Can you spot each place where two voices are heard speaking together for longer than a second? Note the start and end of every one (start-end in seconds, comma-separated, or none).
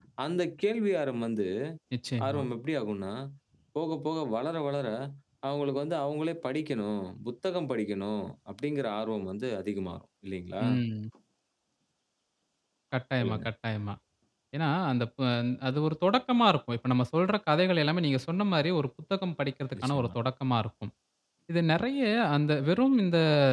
none